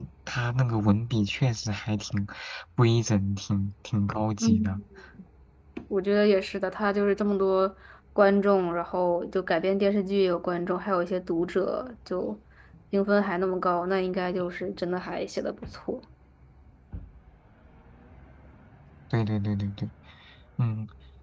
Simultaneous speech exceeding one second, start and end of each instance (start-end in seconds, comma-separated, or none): none